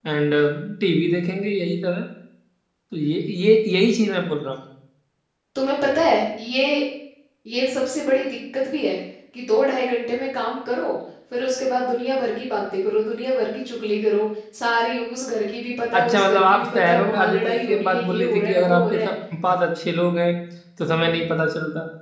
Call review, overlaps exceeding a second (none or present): present